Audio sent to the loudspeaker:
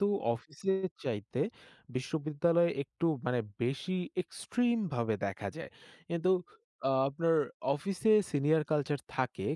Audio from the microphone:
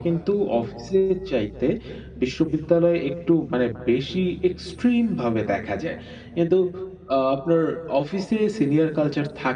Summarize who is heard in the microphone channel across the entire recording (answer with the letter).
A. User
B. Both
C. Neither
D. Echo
D